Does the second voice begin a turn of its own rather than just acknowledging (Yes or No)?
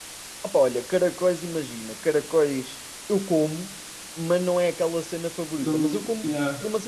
No